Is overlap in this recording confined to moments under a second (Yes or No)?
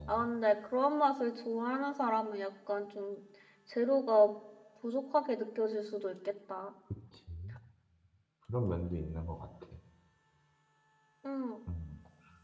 Yes